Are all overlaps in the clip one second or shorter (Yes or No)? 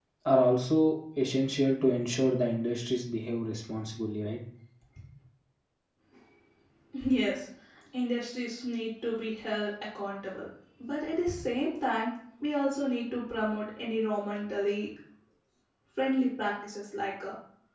Yes